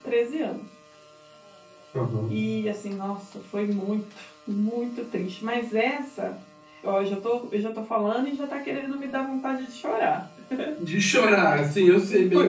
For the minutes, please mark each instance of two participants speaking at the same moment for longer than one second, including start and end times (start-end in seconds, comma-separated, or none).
none